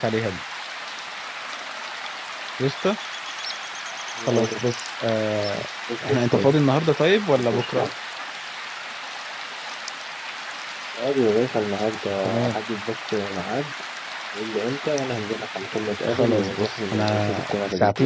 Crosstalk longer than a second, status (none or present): present